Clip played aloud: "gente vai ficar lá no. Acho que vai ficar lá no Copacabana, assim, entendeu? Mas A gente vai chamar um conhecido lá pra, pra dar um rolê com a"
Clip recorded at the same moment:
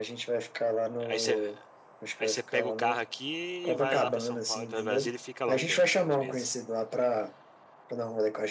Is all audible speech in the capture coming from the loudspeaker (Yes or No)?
No